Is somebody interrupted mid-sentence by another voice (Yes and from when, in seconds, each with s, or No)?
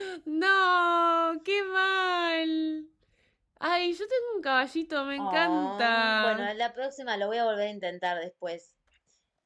Yes, from 5.2 s